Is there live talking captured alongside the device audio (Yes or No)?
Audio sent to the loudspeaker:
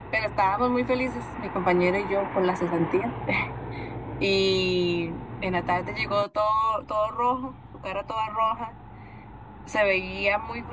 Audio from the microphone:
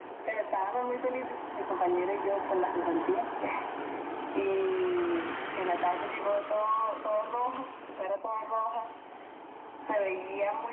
No